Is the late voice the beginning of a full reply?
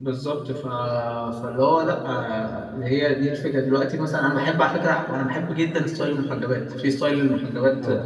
No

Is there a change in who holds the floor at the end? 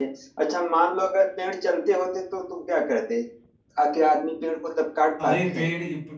Yes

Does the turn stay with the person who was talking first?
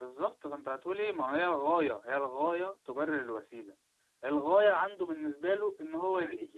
No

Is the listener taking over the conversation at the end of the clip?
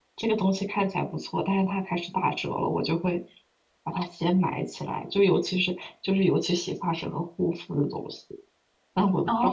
Yes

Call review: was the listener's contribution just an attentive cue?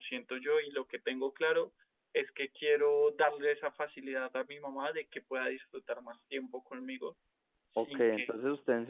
No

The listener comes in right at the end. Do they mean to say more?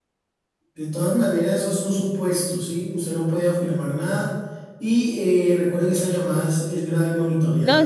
Yes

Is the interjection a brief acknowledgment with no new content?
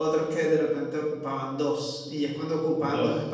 Yes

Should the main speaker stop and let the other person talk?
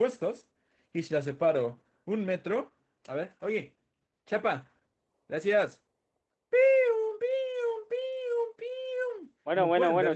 Yes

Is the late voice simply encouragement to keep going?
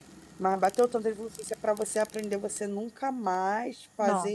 Yes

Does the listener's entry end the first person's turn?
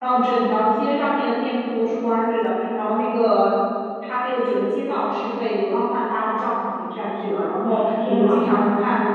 No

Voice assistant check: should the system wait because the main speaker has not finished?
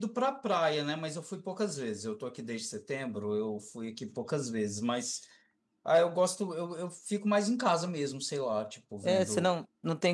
No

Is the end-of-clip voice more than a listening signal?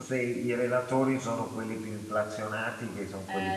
No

